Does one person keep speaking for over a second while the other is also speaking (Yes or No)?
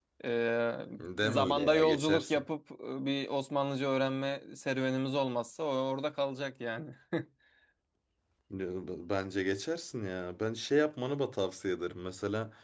Yes